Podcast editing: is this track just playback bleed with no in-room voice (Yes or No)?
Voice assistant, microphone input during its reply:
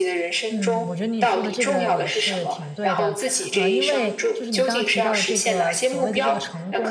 No